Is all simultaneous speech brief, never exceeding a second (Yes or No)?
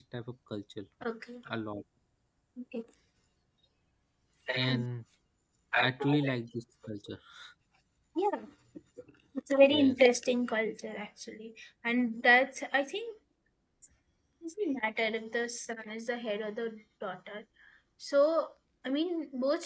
Yes